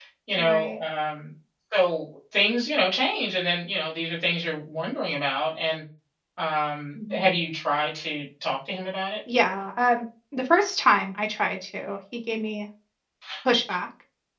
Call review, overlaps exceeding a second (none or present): none